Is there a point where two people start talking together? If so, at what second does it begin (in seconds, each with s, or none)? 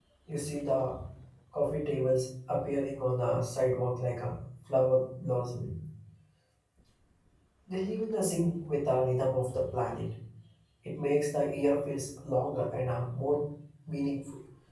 none